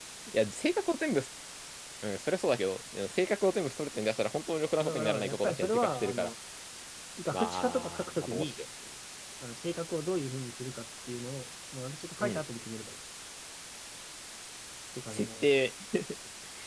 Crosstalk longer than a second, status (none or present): present